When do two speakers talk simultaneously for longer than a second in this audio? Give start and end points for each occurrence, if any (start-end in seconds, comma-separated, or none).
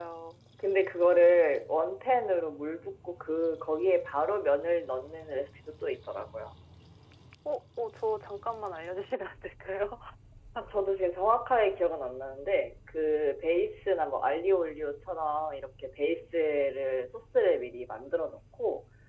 none